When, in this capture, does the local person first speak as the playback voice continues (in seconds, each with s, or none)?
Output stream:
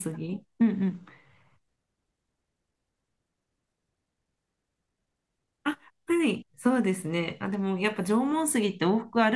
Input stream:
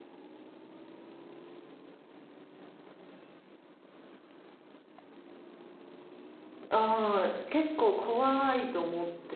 6.7 s